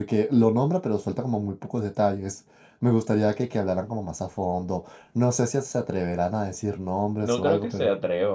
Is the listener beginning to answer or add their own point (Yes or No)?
Yes